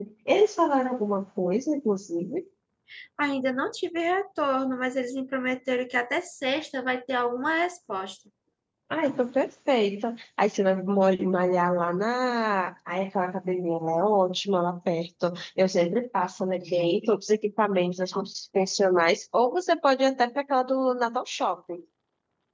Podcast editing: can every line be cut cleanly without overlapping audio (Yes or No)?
Yes